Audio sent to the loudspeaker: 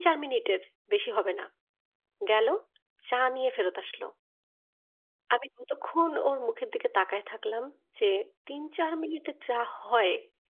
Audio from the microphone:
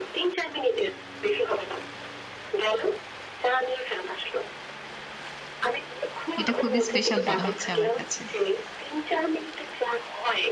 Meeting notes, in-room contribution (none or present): present